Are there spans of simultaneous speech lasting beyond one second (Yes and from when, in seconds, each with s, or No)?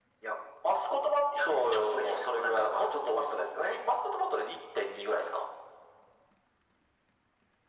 Yes, from 1.4 s